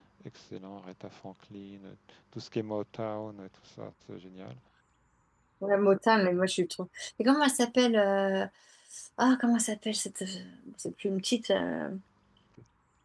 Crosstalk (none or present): none